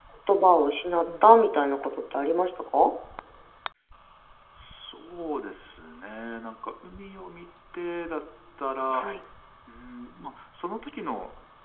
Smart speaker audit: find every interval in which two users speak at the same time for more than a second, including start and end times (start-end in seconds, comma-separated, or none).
none